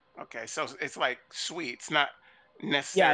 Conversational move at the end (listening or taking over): taking over